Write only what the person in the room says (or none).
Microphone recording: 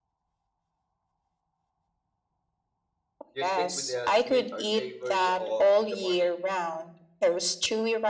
Do you stick with the sweet or savory or in the morning?